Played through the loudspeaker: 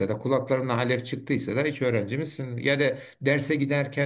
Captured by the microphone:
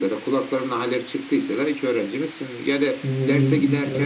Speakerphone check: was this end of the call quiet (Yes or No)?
No